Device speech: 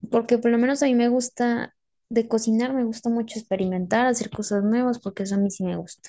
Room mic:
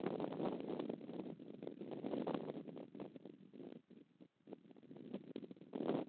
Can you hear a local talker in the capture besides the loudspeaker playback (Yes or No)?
No